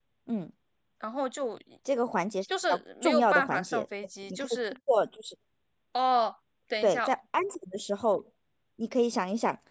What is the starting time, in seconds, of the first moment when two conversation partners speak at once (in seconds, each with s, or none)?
2.5 s